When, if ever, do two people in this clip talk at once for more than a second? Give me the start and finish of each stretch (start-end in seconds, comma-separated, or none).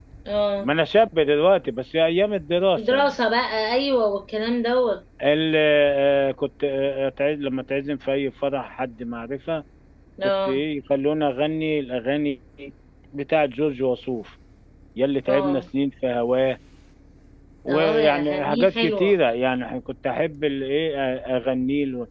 17.7-19.1